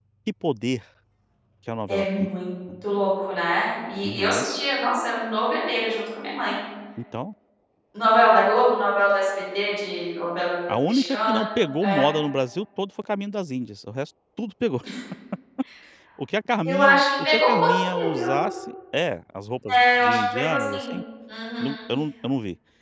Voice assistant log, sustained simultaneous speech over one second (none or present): present